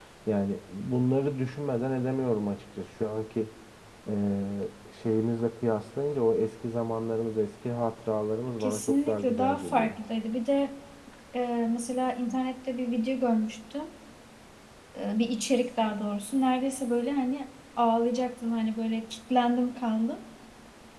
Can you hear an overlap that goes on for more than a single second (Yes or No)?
Yes